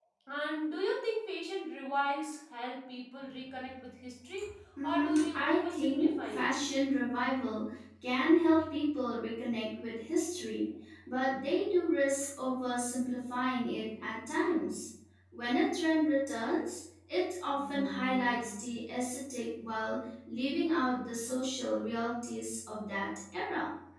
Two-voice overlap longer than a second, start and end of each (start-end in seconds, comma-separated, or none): 4.8-6.5